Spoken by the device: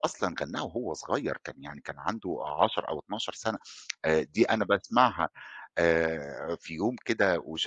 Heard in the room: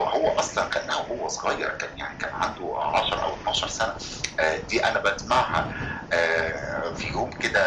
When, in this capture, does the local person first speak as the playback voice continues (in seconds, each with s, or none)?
none